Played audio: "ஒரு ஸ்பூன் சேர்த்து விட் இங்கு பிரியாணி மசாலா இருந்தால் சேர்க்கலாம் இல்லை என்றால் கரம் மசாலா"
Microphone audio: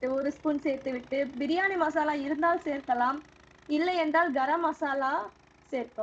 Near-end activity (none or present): none